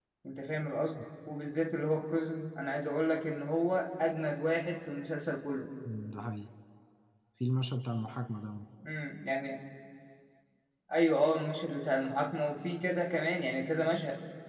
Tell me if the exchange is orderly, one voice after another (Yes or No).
Yes